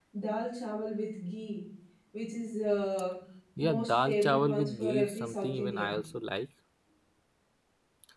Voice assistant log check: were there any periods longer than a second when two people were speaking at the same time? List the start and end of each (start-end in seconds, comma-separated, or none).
3.6-6.0